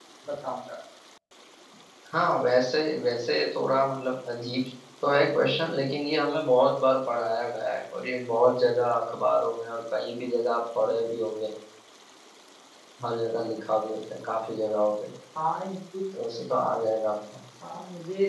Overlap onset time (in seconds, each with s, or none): none